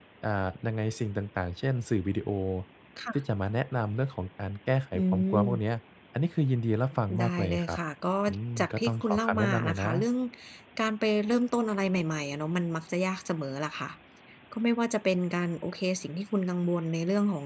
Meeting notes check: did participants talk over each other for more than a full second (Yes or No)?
Yes